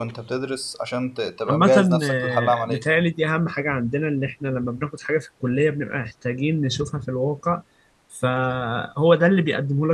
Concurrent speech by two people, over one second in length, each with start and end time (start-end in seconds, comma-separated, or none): 1.5-2.8